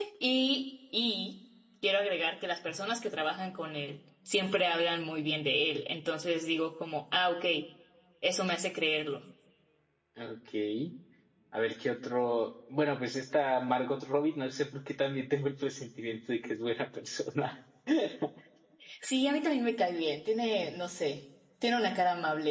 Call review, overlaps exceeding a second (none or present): none